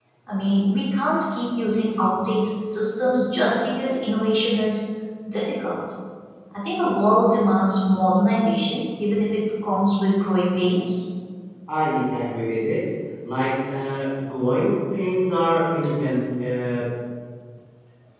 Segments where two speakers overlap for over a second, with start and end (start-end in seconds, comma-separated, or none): none